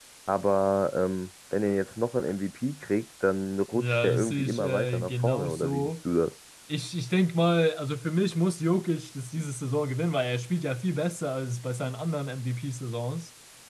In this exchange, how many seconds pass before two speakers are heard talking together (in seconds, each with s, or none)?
3.7 s